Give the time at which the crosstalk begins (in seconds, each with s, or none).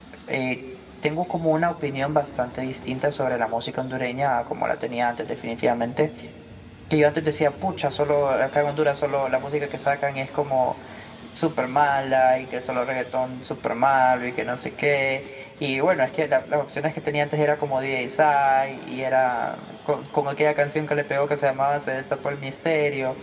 none